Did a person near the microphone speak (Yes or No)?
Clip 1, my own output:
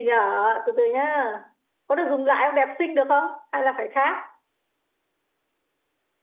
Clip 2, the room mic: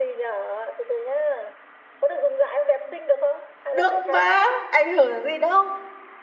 Yes